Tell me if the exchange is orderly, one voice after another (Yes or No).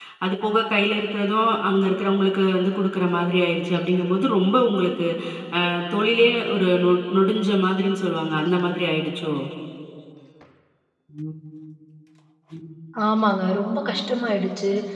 Yes